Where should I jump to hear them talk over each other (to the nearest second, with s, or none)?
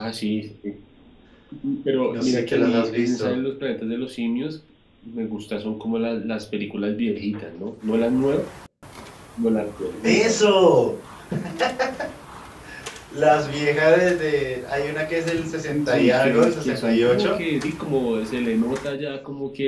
2 s